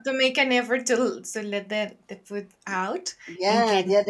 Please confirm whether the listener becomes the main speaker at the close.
Yes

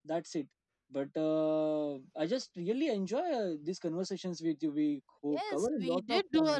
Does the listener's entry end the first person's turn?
Yes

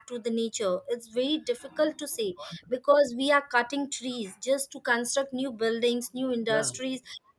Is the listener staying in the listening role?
Yes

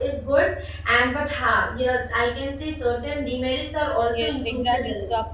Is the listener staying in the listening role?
No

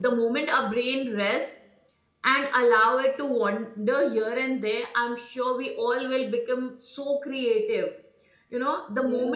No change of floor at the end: Yes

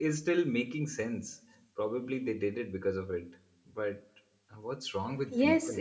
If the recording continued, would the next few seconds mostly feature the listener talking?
Yes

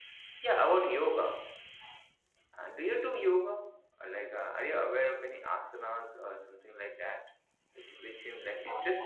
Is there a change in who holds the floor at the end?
Yes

